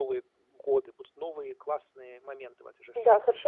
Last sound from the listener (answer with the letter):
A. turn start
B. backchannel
A